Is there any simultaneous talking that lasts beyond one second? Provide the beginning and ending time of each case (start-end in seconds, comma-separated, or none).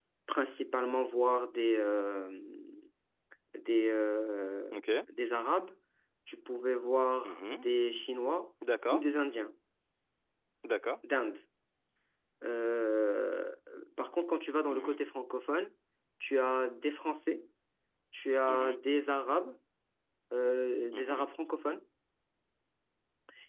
none